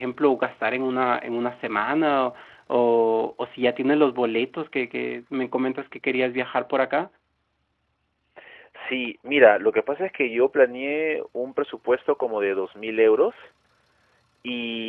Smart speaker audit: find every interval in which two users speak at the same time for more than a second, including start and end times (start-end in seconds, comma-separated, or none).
none